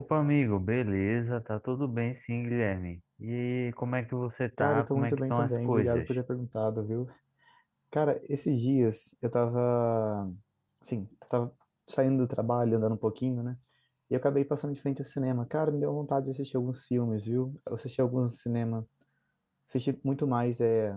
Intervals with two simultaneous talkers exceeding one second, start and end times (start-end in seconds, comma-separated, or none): 4.6-6.1